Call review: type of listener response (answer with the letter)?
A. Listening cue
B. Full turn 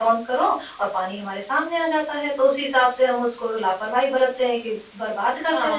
B